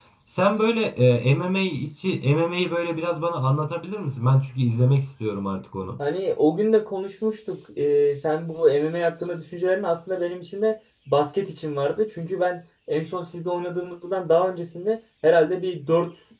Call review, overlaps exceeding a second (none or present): none